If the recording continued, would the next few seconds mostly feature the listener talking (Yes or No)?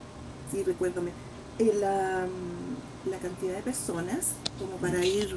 No